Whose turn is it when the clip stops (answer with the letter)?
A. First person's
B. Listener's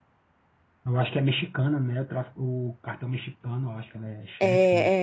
B